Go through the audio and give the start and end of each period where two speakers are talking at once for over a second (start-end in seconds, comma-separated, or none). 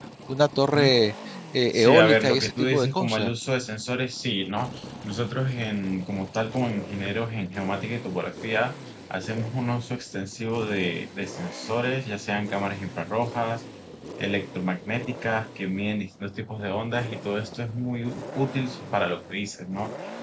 1.7-3.3